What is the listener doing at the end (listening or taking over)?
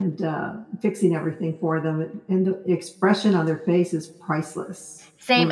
taking over